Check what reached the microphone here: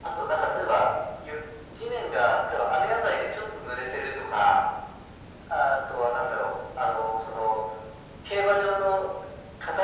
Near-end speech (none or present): none